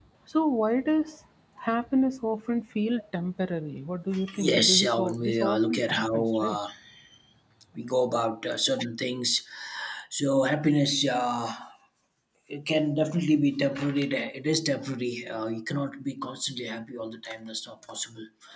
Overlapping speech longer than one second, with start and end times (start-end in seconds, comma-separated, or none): 4.4-6.6